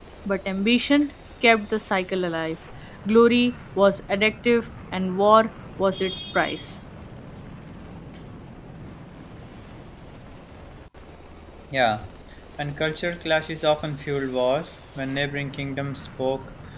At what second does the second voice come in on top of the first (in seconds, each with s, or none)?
none